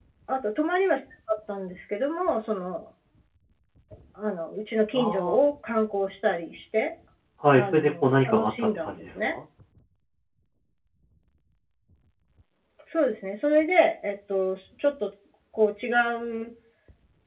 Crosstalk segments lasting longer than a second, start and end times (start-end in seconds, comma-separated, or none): 7.5-9.3